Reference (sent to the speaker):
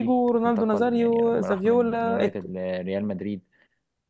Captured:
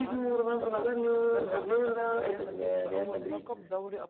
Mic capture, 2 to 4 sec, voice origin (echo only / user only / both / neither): both